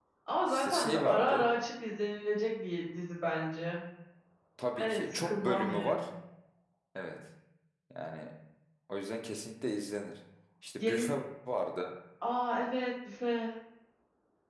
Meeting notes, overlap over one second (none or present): present